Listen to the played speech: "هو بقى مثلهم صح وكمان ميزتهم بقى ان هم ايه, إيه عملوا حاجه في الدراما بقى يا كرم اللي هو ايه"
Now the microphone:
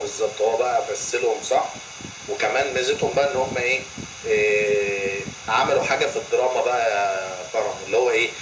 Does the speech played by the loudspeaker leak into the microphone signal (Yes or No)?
Yes